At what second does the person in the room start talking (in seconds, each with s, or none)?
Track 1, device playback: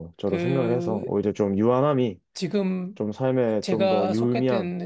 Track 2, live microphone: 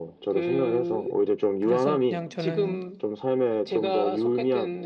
1.6 s